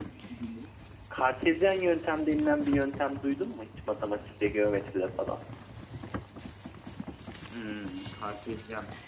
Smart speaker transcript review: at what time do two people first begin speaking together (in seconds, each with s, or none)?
none